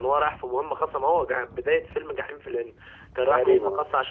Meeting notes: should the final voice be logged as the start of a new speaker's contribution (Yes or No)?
No